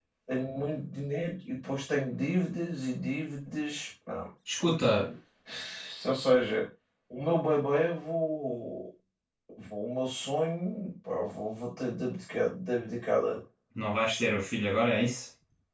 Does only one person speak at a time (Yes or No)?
Yes